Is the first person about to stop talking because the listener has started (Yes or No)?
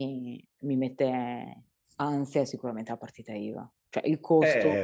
Yes